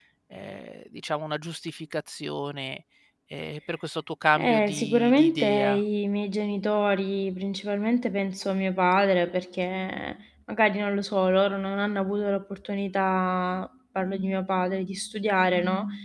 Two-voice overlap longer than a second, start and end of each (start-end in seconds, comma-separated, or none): 4.4-5.8